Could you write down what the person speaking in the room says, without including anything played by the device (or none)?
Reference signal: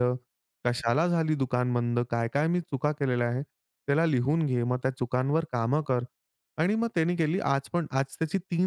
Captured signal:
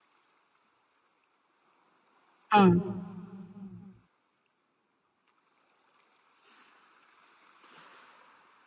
हां.